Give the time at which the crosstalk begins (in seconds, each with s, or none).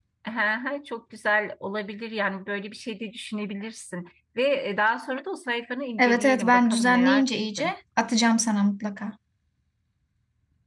6.0 s